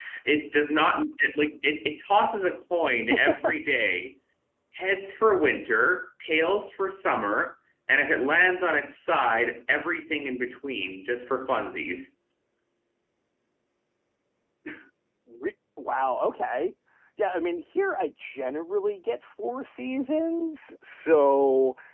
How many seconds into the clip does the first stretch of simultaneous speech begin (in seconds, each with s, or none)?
none